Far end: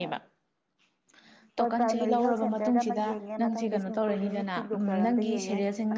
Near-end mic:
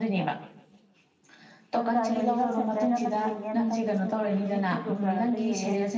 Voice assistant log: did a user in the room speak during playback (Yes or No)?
No